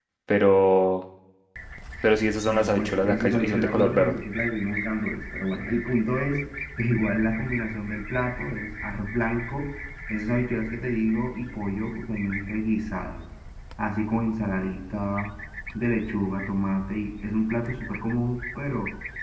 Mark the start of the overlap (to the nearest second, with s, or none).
2 s